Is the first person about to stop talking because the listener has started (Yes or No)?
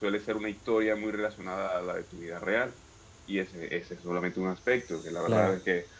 Yes